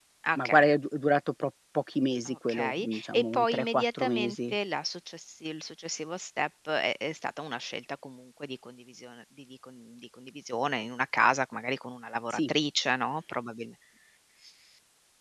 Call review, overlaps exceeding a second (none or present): present